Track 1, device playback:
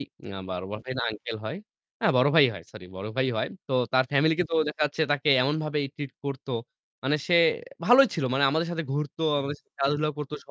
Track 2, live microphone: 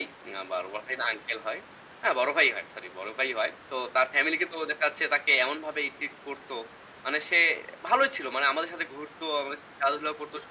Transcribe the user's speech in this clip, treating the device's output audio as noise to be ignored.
none

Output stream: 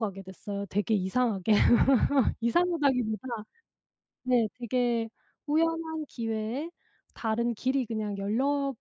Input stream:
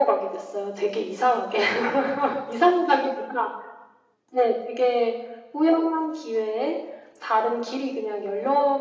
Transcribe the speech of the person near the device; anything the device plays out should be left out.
none

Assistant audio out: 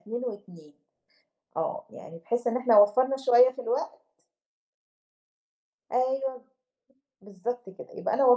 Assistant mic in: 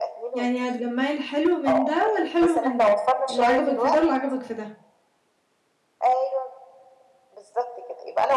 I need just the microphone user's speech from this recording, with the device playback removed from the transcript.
يعني هتجمَّعي الحلو من ده والحلو من ده، اللي عجبك في ده واللي عجبك في ده.

